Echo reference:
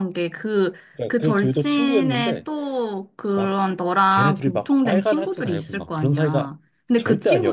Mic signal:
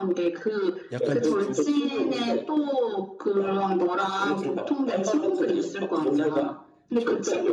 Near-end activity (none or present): present